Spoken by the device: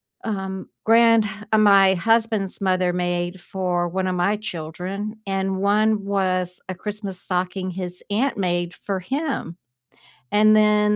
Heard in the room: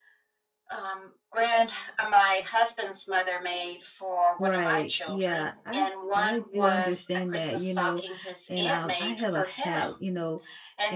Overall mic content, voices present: both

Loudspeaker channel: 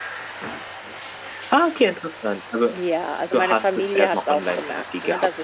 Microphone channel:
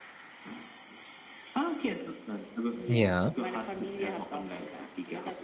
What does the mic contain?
both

